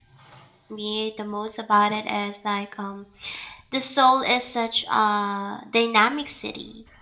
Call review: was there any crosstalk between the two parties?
No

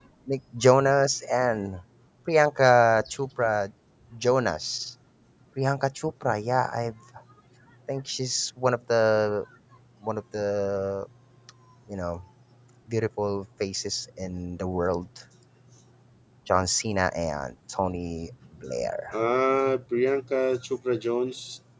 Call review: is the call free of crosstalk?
Yes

